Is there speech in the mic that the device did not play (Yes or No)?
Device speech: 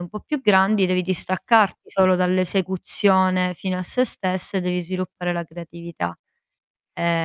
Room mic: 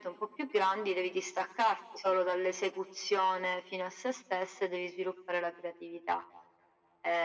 No